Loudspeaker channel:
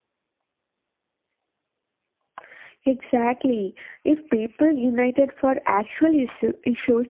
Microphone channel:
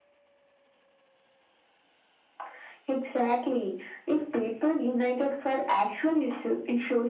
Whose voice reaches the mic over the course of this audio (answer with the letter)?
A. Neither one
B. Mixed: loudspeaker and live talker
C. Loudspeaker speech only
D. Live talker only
C